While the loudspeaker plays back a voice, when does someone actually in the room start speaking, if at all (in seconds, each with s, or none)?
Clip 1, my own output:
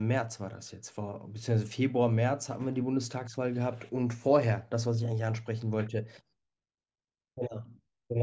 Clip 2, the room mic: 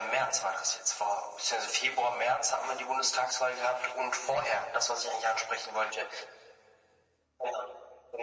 none